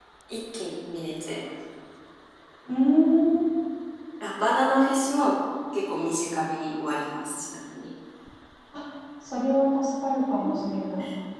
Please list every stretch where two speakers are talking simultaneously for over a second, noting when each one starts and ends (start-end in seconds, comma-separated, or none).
none